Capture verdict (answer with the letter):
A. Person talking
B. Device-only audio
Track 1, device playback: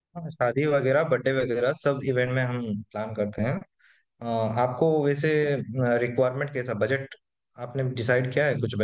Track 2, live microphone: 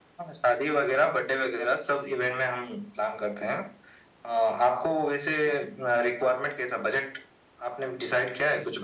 B